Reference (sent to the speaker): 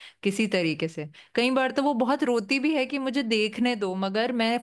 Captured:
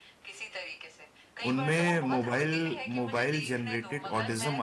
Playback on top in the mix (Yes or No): No